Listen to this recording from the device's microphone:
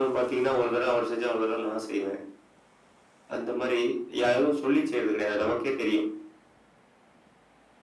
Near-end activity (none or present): none